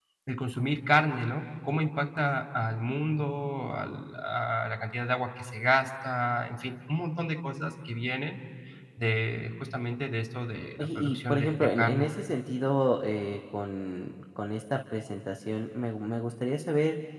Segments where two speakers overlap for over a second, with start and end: 10.8-12.1

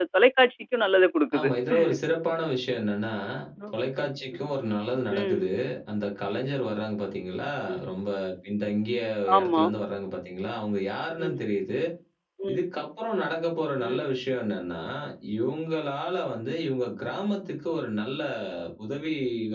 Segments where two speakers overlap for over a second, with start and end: none

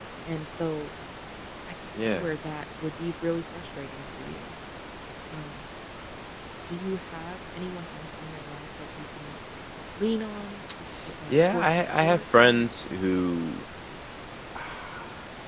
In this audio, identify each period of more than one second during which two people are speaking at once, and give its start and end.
11.3-13.1

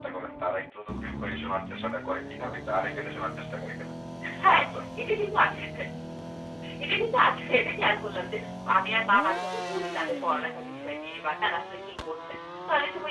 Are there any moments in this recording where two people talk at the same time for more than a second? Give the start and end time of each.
none

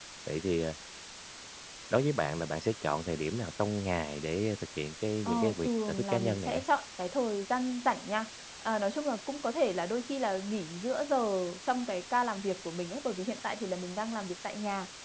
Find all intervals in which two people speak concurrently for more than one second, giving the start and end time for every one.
5.2-6.6

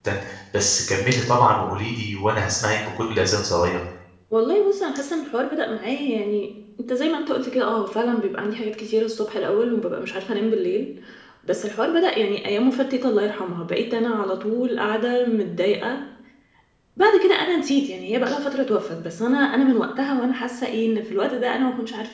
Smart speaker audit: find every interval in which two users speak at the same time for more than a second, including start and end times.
none

